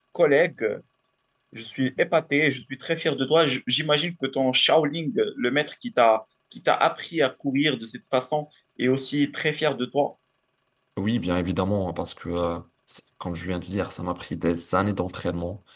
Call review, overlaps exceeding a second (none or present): none